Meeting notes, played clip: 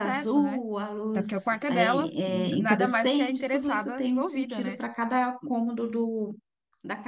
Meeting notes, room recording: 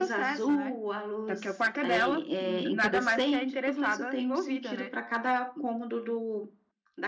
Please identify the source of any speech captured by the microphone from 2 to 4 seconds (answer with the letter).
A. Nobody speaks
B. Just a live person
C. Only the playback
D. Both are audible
C